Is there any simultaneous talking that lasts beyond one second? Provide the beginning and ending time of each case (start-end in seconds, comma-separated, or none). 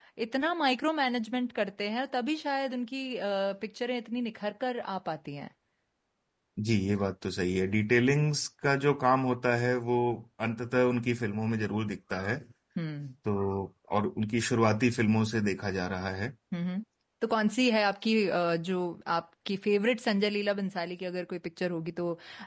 none